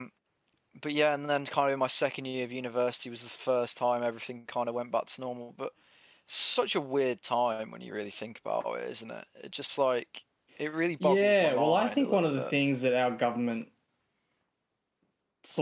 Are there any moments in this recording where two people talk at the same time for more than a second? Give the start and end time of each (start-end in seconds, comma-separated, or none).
11.0-12.4